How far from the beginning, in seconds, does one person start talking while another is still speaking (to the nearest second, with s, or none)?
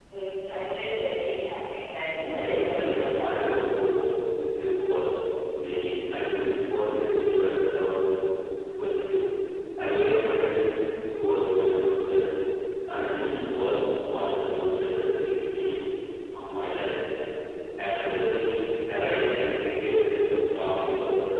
2 s